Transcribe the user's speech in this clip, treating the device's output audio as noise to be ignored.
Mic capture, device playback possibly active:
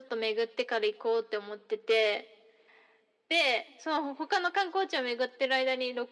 none

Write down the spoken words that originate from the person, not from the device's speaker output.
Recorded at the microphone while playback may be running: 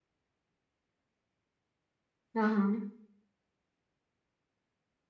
हाँ हाँ

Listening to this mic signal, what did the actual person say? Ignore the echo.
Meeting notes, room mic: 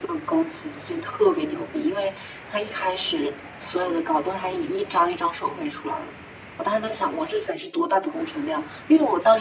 none

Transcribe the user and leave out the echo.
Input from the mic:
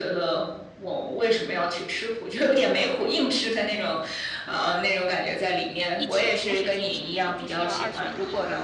一起同时进行的，就不需要二选一。

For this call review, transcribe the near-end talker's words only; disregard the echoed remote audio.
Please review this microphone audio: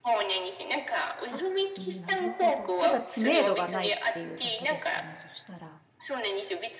あ、なるほど。ただ知名度がないっていうだけですかね、そしたら。

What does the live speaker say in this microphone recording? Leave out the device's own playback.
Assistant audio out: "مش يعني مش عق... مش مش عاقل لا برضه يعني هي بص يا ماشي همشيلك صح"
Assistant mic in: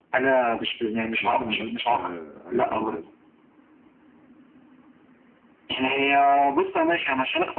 يا ابني حاجات آه، حاجات سهلة يا ابني

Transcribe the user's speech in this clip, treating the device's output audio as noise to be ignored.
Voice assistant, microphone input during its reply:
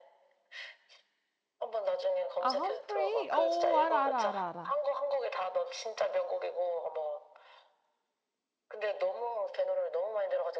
아, 험프레이? 어, 알아, 알아, 알아, 알아.

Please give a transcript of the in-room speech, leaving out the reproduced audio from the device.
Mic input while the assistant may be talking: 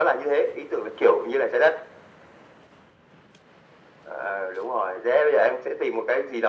none

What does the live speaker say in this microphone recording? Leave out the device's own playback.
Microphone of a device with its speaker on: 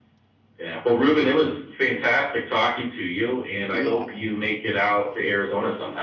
Yeah.

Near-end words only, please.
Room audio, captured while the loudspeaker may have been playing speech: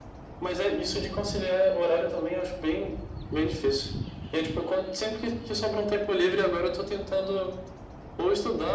none

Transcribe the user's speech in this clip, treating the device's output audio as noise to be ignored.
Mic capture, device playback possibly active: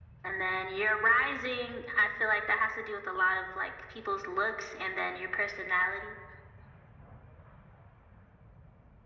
none

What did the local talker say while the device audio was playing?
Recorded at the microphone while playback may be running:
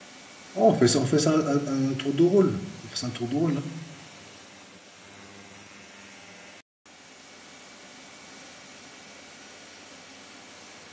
Oh, on fait ça, on fait ça à- à un, tour de rôle. On fait ça un tour de rôle, hein.

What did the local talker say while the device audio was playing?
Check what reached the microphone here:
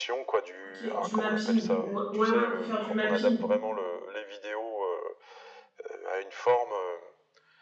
Ok, du mapping. Ou- Ouais ouais on peut faire du mapping.

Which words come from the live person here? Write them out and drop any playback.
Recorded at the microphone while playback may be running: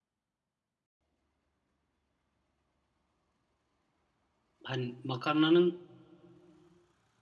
hani makarnanın

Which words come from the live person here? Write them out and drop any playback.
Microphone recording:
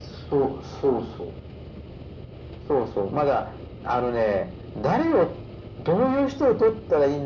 none

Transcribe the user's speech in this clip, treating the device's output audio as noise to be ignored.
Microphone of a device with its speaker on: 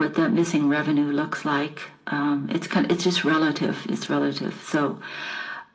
none

